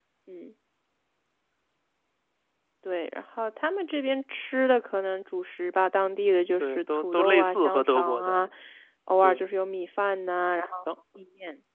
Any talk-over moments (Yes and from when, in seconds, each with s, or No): Yes, from 6.6 s